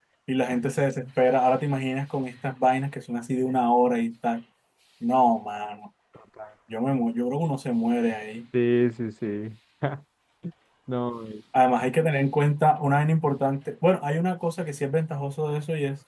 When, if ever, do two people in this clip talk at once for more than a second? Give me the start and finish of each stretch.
none

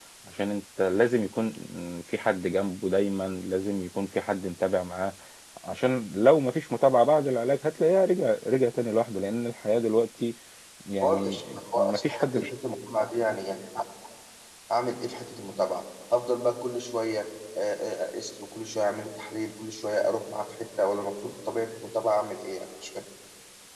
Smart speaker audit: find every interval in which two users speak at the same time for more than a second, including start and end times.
11.0-12.3

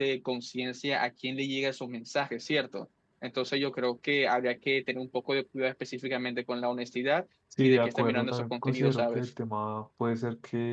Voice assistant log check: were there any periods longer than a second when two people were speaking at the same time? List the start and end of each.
7.6-9.3

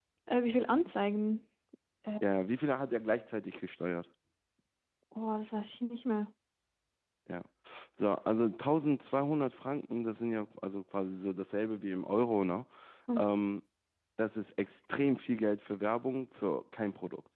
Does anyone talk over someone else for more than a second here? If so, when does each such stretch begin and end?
none

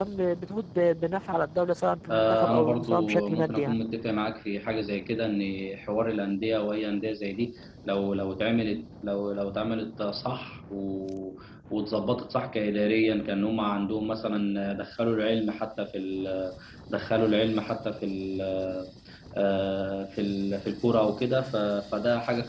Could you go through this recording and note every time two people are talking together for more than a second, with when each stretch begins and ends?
2.1-3.8

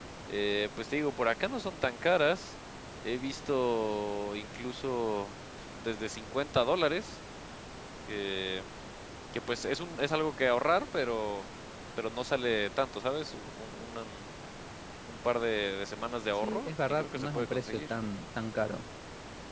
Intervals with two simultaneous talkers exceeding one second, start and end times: 16.4-17.8

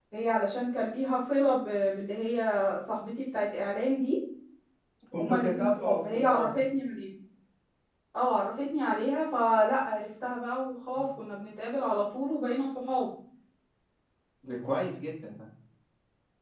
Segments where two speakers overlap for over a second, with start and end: 5.2-6.5

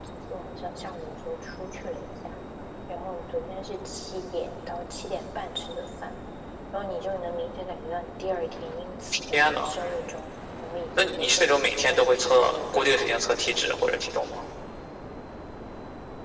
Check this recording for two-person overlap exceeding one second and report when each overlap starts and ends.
11.0-13.1

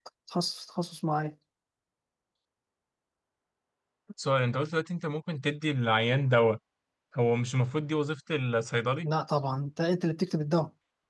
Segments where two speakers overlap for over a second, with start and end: none

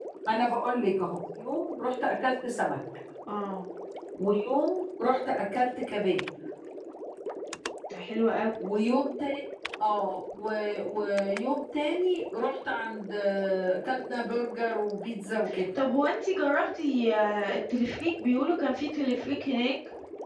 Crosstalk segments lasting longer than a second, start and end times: none

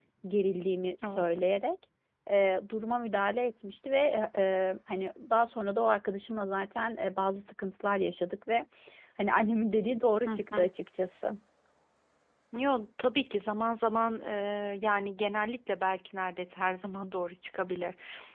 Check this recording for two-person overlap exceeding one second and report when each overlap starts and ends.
none

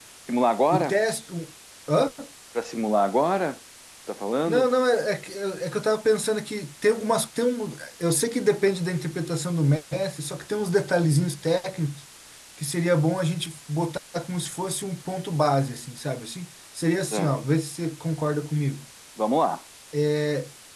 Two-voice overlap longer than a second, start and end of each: none

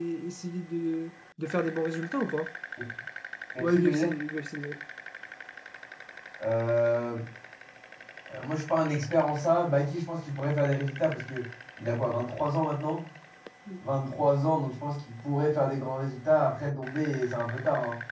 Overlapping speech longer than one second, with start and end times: none

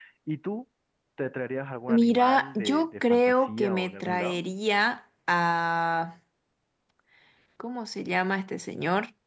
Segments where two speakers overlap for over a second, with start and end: 1.9-4.4

